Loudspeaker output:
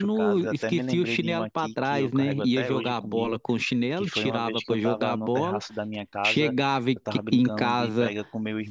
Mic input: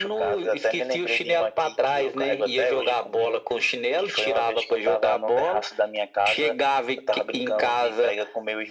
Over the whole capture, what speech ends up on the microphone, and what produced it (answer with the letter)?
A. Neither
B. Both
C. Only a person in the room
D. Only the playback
D